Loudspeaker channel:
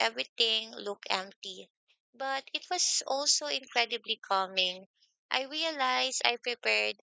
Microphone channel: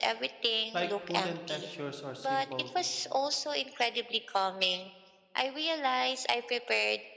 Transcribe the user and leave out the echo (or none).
like wooden textures or simple,